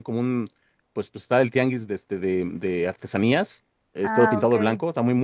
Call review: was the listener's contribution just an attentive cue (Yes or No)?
Yes